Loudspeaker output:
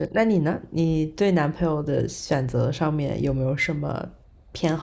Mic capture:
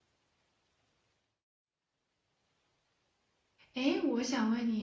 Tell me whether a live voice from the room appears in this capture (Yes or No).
Yes